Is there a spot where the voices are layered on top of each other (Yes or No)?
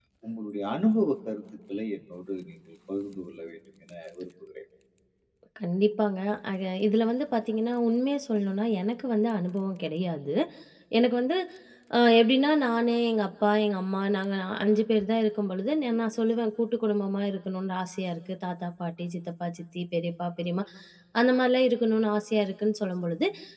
No